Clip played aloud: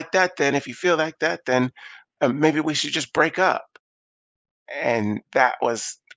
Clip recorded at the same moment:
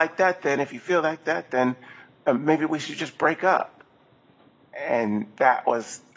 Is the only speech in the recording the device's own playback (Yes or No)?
Yes